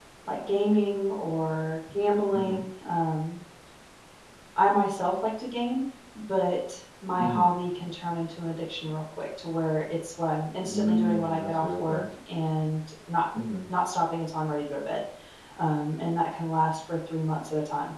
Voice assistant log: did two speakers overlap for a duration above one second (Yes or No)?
Yes